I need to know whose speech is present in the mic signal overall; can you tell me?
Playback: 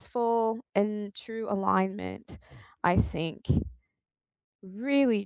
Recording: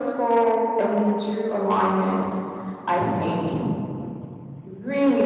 echo only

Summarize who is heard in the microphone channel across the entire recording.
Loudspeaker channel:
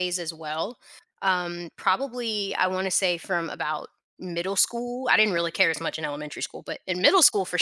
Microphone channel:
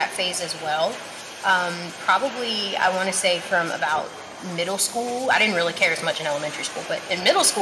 echo only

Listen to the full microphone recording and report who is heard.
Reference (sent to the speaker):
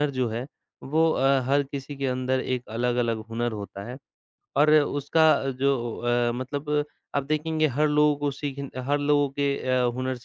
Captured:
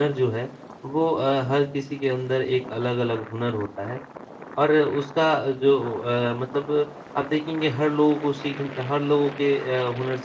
echo only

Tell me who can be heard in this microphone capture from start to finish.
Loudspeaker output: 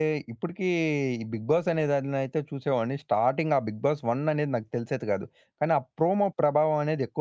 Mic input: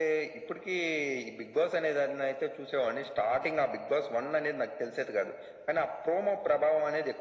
echo only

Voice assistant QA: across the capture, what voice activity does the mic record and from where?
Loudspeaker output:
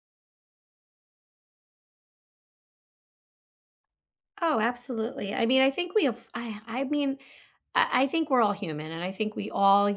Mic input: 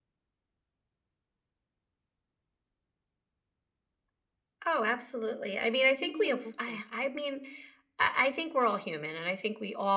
both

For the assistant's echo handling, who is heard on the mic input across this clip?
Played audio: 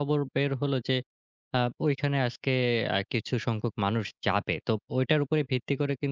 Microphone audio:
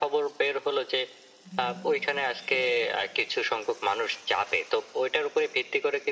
both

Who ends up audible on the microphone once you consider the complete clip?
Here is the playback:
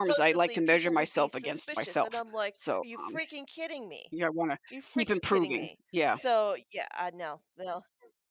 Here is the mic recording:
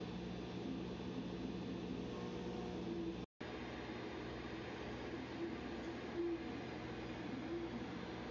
neither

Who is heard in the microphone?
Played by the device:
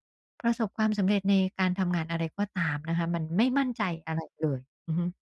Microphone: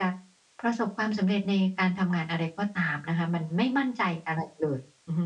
echo only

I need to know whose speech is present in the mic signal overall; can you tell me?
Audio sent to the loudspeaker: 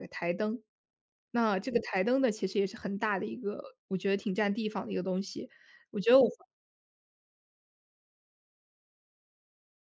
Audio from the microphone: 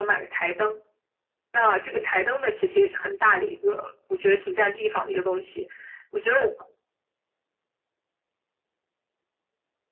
echo only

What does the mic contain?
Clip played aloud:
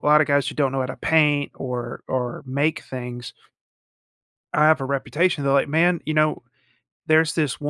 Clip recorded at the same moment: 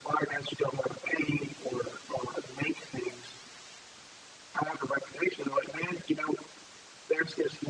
echo only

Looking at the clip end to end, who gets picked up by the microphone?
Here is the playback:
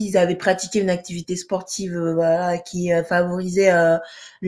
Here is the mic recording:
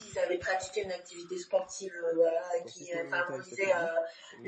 both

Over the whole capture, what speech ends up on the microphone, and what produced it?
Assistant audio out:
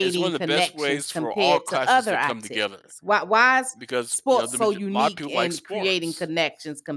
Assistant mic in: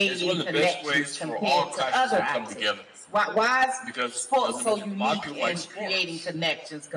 echo only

